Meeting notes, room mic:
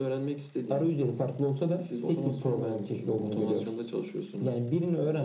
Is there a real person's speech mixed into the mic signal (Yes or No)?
No